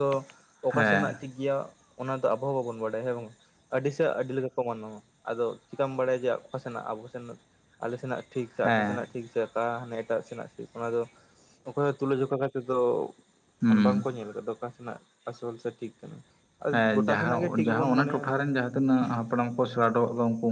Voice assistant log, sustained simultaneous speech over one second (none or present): present